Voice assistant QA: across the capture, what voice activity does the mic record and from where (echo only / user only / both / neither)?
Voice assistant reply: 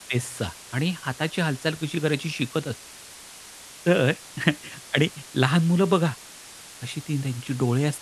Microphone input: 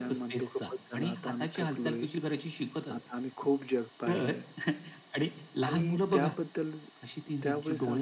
both